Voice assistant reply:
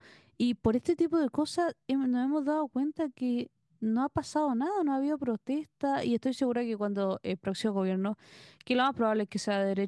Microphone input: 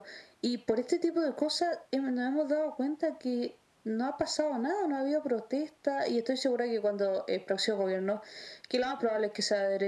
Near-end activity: none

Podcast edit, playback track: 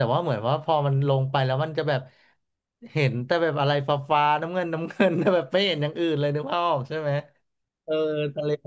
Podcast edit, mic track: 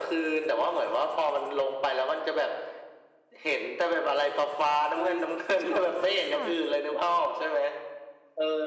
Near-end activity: present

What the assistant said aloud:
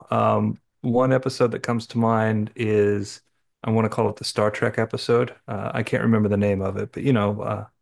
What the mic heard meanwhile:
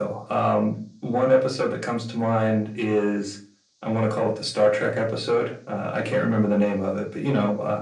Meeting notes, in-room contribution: none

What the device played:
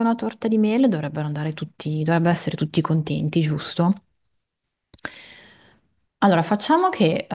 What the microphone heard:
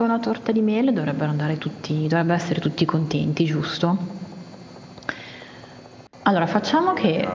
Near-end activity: present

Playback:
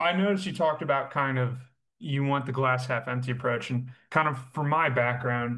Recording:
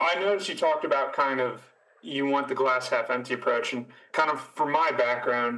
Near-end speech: none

